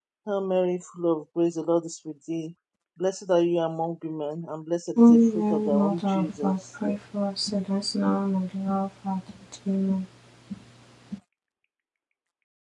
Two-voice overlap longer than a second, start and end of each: 5.0-6.6

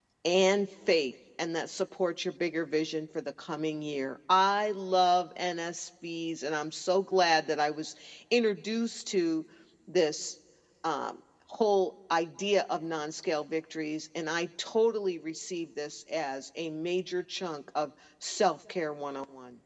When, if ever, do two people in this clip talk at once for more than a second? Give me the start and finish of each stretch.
none

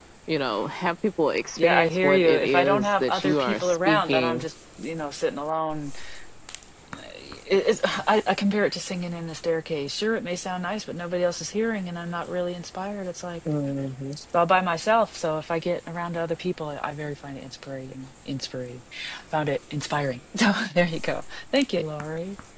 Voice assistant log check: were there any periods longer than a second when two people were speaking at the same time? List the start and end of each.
1.6-4.5

